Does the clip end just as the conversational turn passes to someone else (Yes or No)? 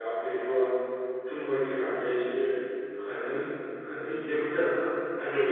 Yes